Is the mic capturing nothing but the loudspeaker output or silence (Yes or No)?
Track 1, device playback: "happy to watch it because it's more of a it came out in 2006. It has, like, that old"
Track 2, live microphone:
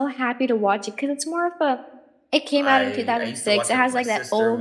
No